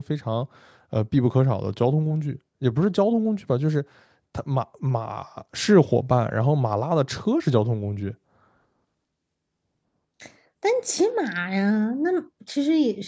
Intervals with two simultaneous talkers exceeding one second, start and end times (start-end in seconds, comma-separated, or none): none